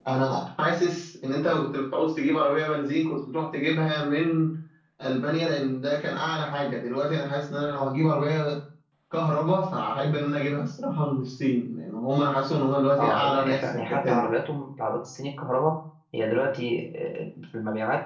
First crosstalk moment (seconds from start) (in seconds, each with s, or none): 13.0 s